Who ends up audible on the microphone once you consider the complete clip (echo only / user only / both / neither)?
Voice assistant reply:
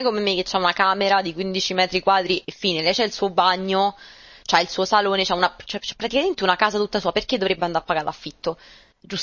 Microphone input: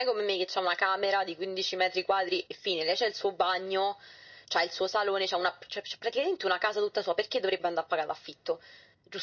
echo only